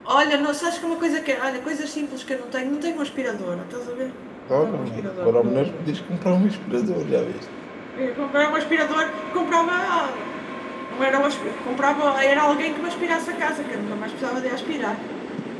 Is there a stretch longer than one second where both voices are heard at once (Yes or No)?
Yes